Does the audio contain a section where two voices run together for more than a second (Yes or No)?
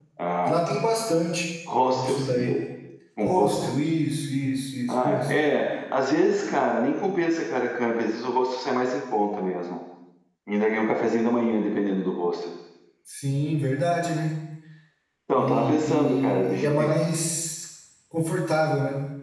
Yes